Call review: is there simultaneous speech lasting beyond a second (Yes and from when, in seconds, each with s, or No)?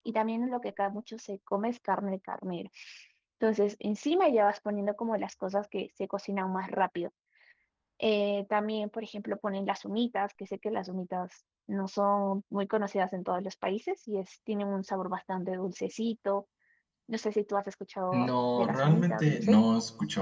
Yes, from 18.1 s